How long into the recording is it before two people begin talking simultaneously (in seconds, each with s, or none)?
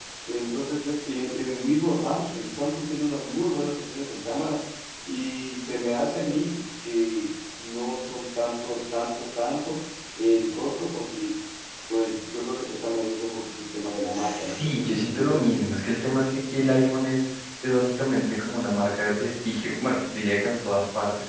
14.1 s